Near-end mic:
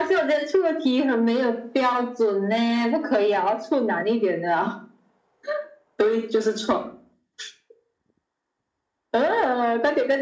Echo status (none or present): present